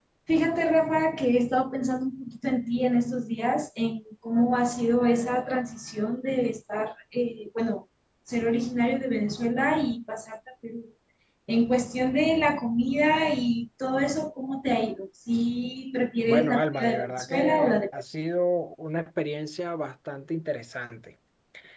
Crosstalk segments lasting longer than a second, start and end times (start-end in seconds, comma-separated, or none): 16.2-18.0